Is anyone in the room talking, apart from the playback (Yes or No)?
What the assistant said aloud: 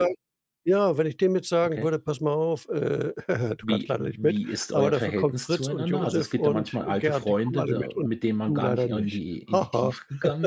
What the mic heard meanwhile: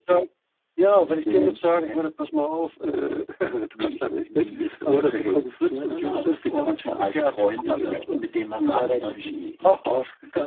Yes